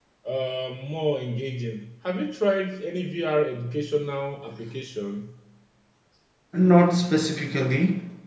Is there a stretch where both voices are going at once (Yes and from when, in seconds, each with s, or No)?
No